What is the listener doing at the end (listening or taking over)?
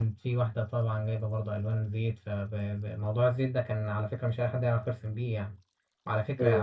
listening